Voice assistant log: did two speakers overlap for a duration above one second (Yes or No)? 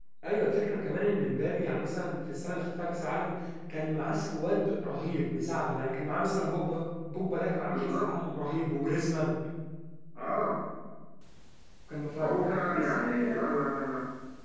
Yes